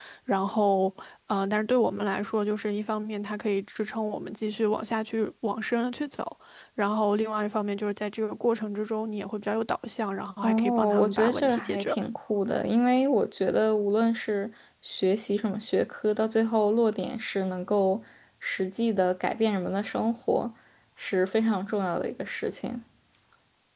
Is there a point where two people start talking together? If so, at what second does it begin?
10.4 s

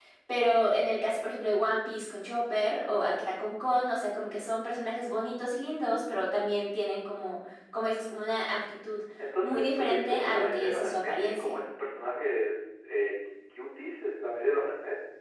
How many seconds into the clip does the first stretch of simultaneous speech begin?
9.4 s

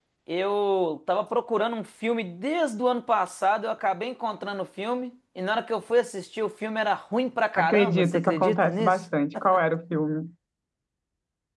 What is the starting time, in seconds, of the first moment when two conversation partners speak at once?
7.6 s

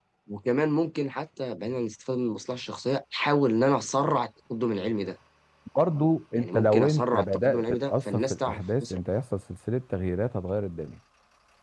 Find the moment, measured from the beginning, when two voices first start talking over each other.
6.3 s

